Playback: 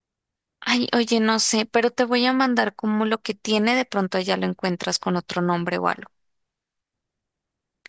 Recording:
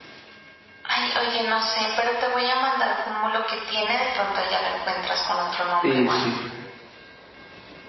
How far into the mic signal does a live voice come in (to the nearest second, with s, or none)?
6 s